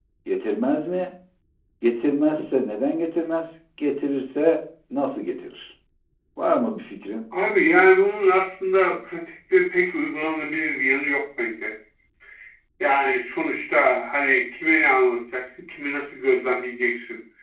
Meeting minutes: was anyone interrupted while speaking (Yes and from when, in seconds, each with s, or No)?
No